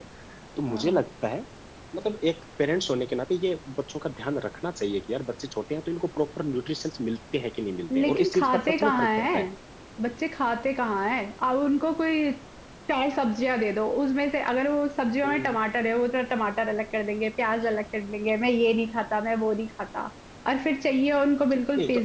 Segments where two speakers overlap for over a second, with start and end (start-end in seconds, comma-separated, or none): 8.0-9.4